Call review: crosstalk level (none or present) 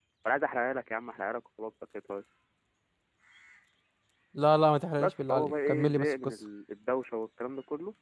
present